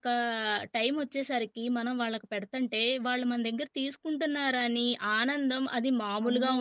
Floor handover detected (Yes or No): Yes